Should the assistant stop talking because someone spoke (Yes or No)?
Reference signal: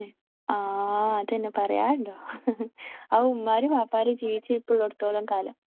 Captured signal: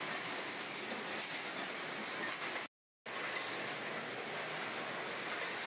No